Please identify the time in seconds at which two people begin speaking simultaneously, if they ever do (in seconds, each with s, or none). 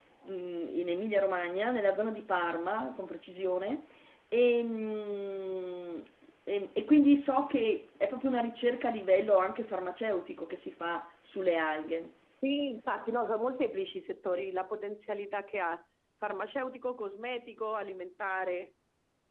none